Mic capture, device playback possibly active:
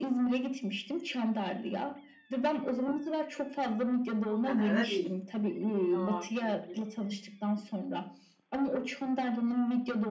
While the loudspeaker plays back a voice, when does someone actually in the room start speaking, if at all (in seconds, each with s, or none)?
4.3 s